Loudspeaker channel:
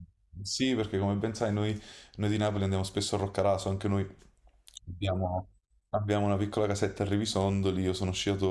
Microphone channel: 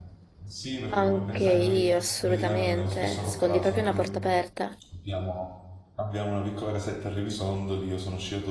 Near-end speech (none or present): present